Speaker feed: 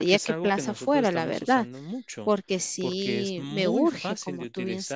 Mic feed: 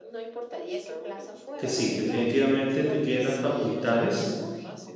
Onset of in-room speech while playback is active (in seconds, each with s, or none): 1.6 s